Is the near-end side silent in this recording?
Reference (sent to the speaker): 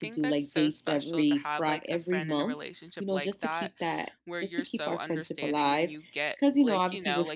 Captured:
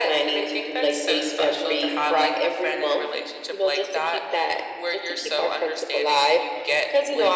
Yes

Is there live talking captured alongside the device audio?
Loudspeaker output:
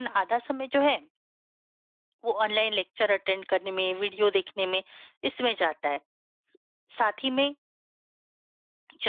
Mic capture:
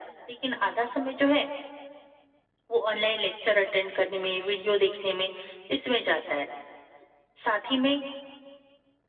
No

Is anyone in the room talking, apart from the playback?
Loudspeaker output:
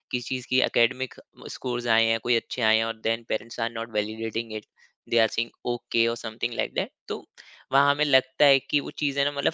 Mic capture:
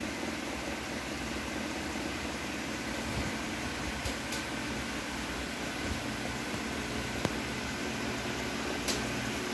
No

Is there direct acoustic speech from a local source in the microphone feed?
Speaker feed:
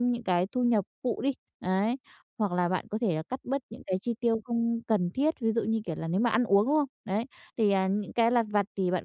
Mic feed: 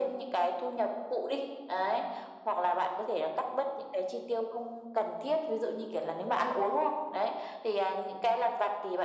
No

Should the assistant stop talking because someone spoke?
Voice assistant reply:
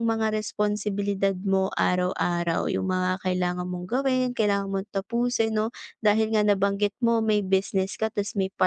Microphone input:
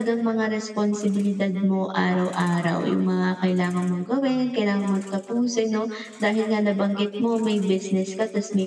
No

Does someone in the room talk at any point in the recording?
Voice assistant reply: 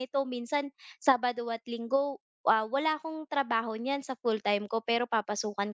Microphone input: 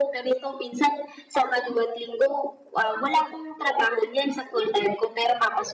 No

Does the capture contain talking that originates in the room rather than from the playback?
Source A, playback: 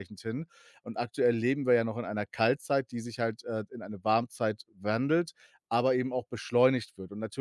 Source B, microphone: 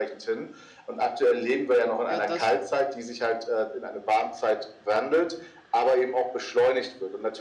Yes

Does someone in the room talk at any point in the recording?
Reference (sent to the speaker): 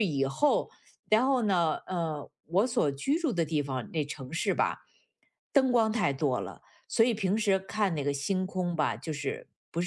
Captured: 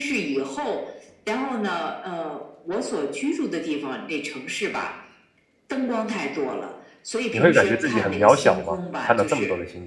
Yes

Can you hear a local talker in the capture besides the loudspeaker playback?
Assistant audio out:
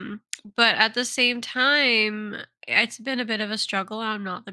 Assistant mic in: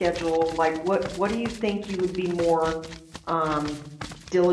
Yes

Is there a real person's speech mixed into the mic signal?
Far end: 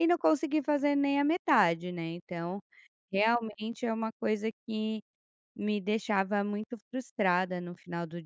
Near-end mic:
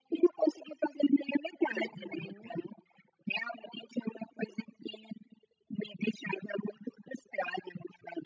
Yes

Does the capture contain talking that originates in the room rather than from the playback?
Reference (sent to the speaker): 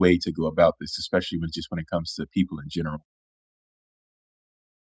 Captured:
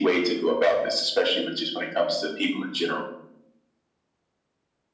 No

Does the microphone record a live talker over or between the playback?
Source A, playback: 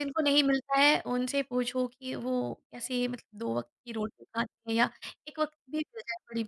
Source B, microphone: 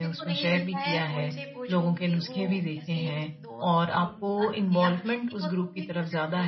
Yes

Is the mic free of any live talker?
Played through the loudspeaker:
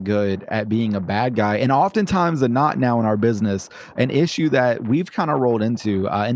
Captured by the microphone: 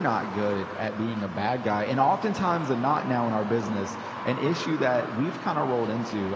Yes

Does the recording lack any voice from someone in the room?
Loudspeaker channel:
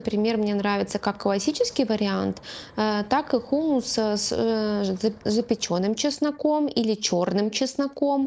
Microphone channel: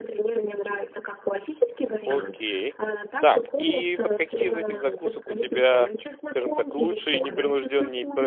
No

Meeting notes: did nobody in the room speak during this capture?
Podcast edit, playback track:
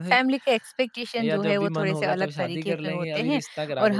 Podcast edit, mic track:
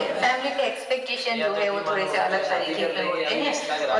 Yes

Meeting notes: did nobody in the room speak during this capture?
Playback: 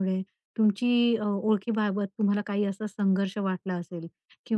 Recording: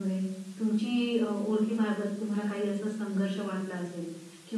Yes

